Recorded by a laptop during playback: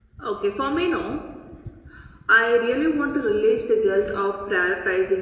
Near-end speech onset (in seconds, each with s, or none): none